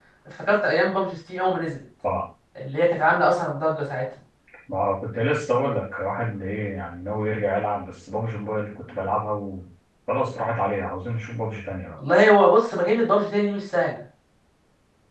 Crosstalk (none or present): none